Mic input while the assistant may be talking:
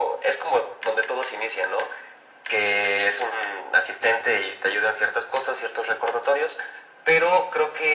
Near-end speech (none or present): none